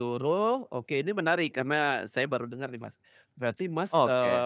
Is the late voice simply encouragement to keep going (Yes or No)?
Yes